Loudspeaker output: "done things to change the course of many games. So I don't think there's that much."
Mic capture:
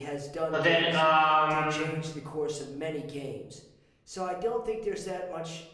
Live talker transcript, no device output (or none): but then um,